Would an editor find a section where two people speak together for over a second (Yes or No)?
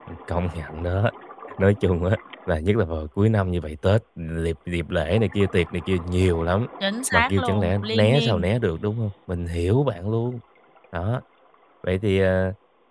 Yes